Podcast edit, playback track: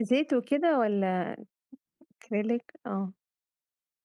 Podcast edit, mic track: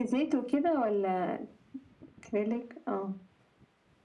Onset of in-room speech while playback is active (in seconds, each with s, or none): none